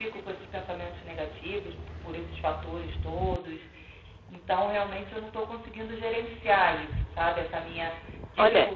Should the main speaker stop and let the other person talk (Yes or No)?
Yes